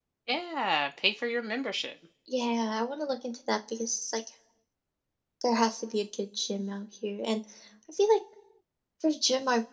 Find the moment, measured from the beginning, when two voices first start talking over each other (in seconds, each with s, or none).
none